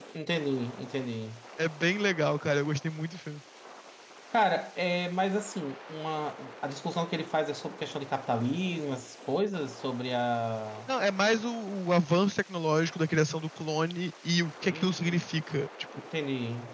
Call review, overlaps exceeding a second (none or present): none